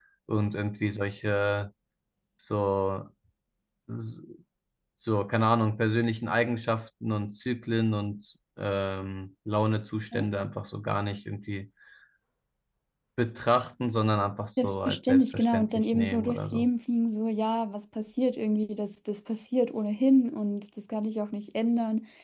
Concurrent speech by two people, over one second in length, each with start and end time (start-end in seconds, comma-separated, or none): 14.6-16.7